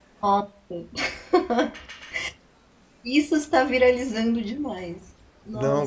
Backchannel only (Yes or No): No